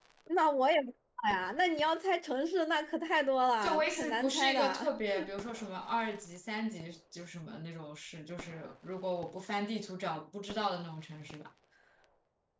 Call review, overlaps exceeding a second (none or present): present